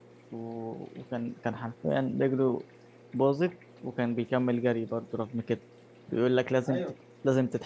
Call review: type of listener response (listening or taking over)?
listening